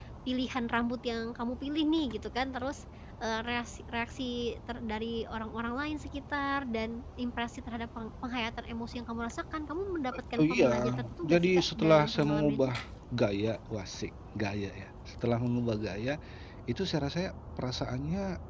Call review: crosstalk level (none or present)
present